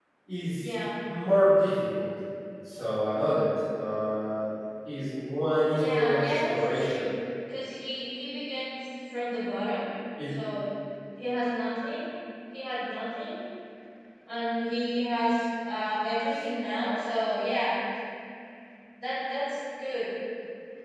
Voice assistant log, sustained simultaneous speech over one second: present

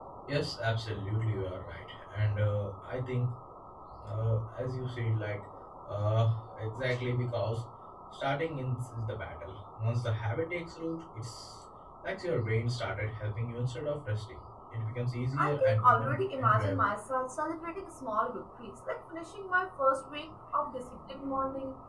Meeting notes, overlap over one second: present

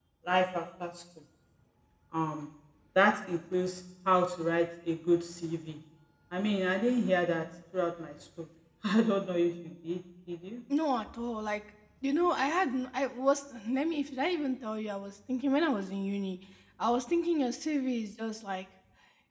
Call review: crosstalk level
none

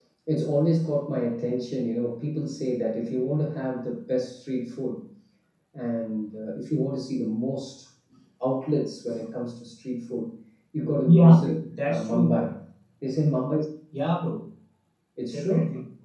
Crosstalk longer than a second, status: present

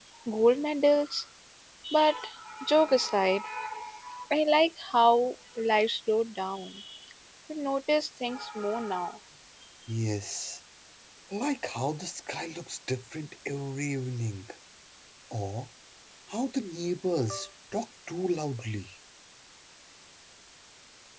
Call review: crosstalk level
none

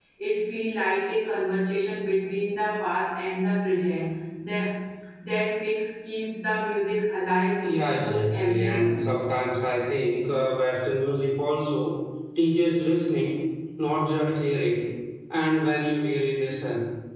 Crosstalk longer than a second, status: present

